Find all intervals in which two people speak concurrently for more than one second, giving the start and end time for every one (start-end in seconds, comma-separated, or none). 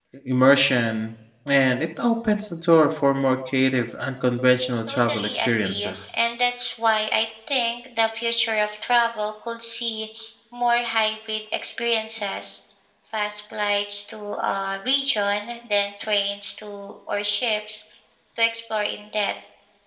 4.9-6.1